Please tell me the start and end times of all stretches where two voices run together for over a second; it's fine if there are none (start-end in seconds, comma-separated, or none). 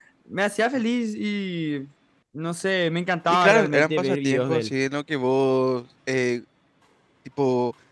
3.3-4.7